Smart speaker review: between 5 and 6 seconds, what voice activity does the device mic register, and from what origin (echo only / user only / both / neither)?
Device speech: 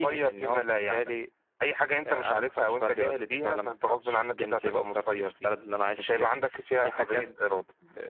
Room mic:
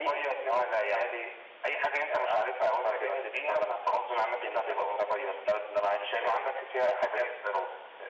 echo only